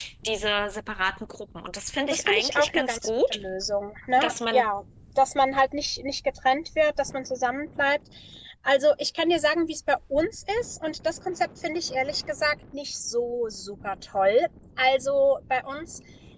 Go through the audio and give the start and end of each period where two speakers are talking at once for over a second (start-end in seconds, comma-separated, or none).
2.1-3.4